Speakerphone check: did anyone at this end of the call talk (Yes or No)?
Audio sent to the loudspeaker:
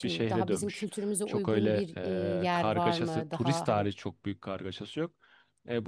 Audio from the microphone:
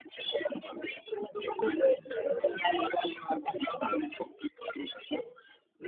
No